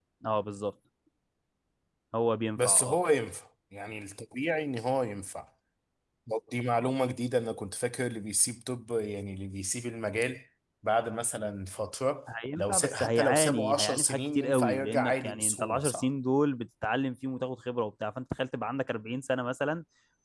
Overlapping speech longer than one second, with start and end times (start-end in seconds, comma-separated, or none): 12.6-16.0